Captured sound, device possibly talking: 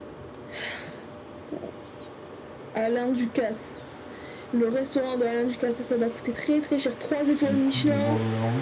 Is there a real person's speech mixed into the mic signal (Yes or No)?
Yes